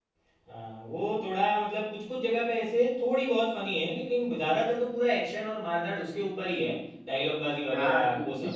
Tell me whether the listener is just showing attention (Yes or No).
No